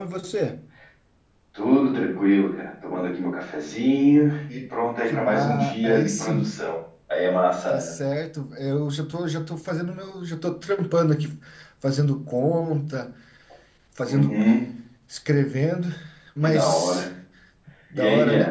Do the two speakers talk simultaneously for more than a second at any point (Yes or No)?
Yes